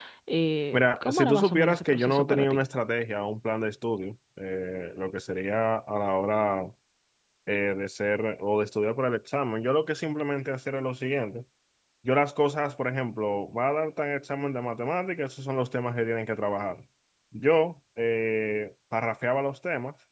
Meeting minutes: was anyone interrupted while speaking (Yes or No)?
Yes